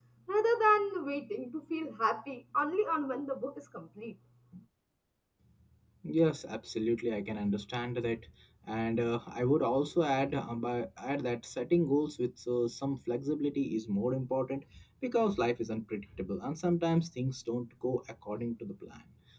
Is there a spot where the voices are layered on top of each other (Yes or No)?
No